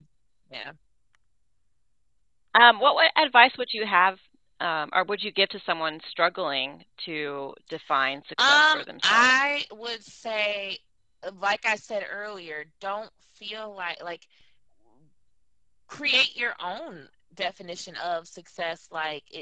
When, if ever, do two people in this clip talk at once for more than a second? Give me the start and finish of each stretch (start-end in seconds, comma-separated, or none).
8.4-9.6